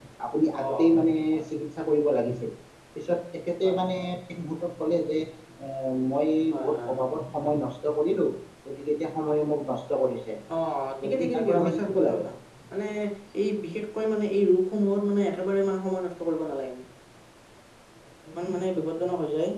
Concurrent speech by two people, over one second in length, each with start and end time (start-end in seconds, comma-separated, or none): 11.0-12.2